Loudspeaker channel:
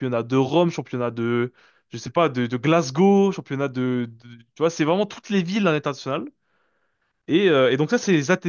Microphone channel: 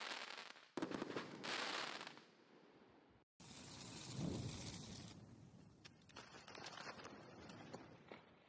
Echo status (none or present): none